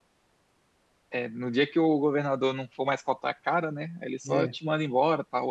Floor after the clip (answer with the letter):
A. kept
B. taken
A